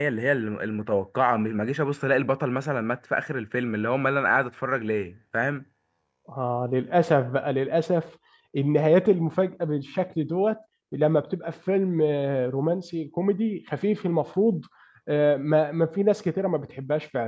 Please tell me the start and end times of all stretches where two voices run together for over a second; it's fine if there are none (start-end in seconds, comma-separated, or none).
none